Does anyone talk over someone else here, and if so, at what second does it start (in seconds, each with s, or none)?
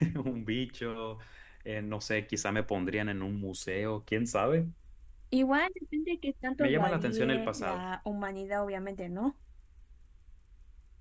6.6 s